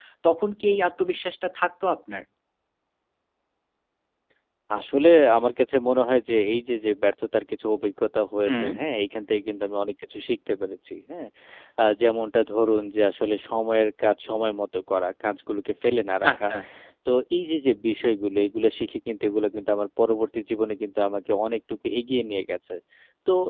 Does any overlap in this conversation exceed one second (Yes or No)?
No